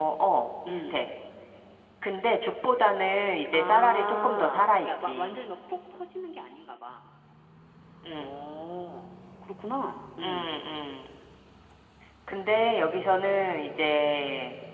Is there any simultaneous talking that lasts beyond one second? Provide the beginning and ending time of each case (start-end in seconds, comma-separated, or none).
3.5-5.4